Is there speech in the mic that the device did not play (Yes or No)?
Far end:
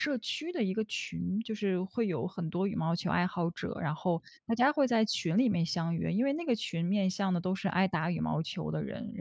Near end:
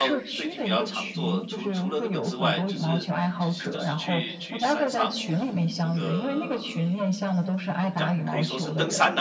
Yes